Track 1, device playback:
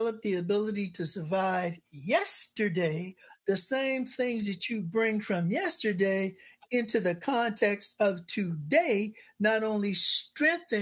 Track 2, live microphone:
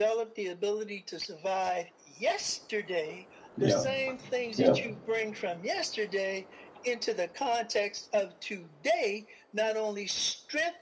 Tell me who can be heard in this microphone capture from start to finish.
both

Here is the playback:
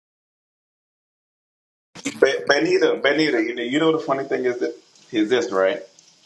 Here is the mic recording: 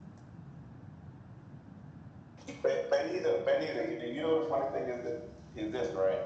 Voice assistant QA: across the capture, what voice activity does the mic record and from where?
echo only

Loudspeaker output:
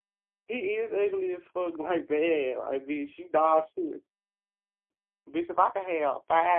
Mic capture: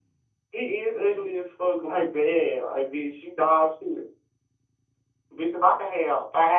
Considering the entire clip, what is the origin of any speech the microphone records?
echo only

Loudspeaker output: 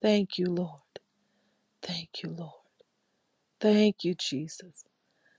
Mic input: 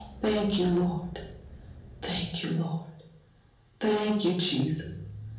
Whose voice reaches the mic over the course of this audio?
echo only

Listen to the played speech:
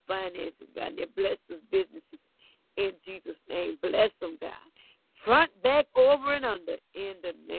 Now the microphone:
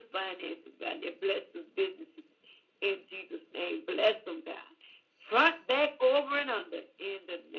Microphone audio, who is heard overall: echo only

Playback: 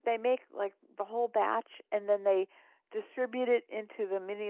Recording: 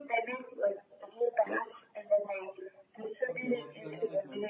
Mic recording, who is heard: both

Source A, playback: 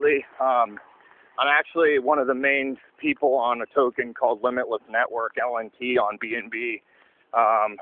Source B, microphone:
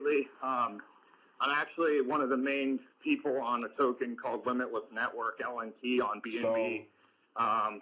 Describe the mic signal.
both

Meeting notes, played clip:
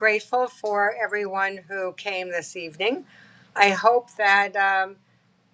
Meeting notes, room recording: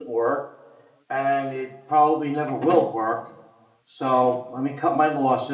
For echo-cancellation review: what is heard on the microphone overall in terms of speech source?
user only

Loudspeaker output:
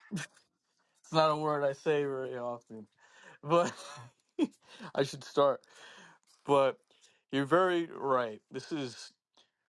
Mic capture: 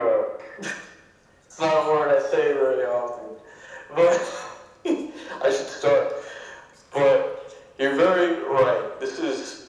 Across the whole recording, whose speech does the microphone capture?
echo only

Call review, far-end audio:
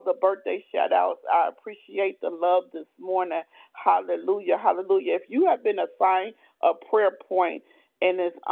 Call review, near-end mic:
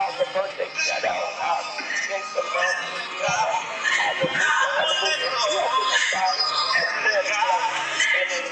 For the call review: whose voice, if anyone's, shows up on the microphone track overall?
both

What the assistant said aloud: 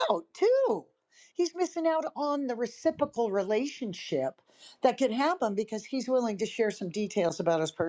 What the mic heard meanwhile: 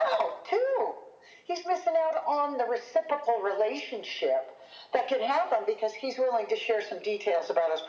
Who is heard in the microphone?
echo only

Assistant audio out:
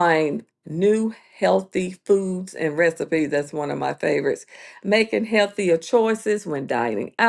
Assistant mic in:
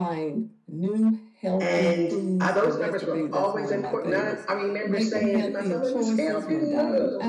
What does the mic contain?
both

